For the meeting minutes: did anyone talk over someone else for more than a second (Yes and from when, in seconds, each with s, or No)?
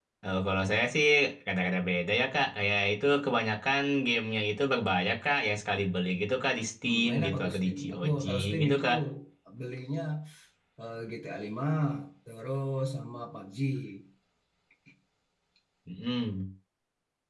Yes, from 6.8 s